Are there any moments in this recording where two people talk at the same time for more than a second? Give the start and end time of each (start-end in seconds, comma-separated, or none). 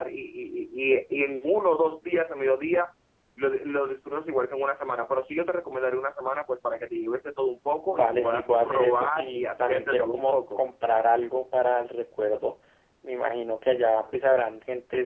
7.9-10.6